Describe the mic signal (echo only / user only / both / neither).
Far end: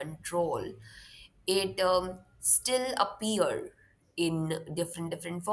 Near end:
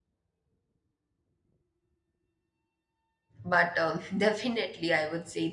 user only